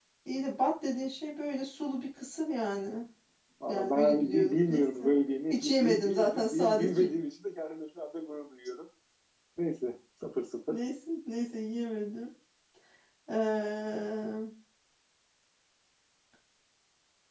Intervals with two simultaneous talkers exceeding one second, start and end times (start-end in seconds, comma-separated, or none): 3.7-5.1, 5.5-7.1